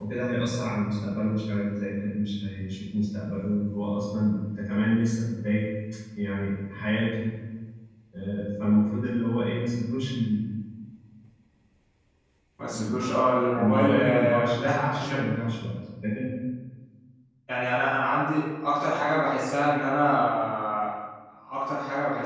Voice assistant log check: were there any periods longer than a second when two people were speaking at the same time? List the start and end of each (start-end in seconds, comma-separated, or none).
13.5-15.2